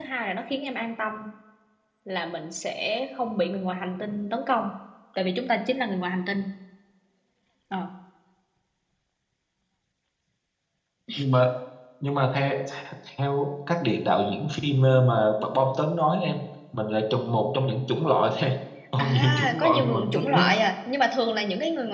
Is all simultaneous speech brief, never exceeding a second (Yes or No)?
No